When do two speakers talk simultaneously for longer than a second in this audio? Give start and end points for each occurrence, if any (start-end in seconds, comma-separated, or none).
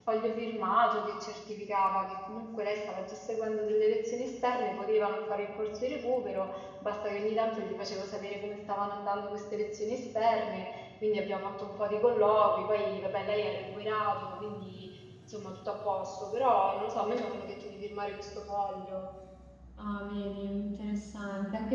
none